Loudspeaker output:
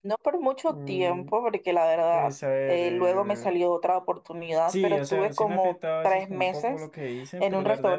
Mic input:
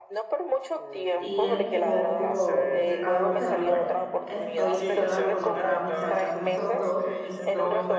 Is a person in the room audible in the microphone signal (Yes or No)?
Yes